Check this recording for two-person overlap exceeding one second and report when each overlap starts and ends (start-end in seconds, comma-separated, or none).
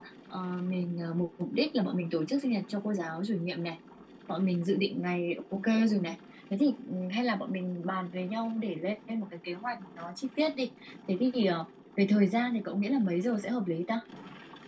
none